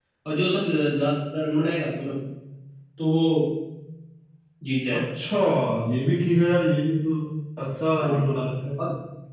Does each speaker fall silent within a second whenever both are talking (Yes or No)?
Yes